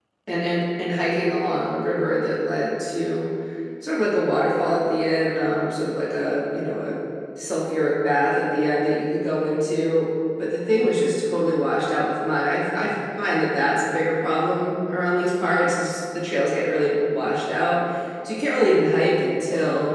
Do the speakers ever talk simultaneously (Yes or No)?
No